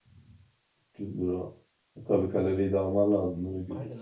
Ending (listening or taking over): taking over